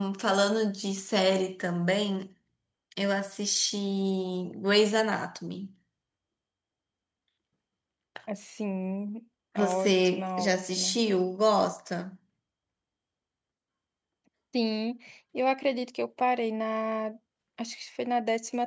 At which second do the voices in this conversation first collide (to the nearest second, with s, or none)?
10 s